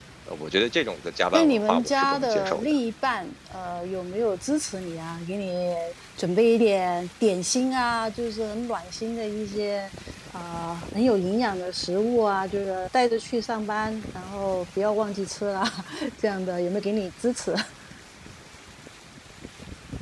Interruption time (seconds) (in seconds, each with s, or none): 1.3 s